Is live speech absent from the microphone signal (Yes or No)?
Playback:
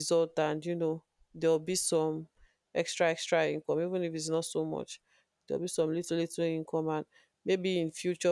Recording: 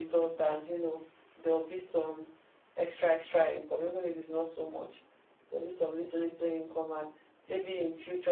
Yes